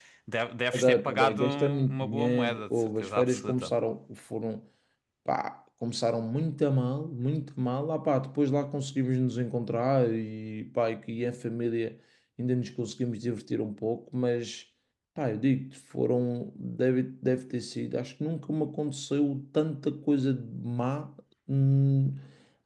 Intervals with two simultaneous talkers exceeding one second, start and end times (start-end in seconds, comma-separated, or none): 0.7-3.7